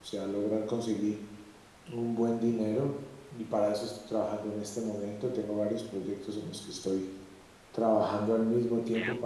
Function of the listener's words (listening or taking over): listening